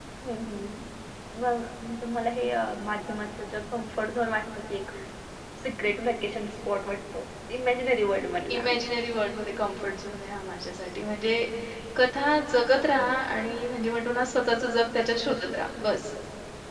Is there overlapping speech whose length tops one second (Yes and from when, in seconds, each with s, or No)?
No